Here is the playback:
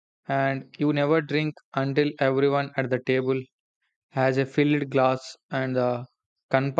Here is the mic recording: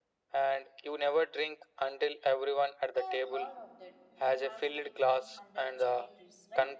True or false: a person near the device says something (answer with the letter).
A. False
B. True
B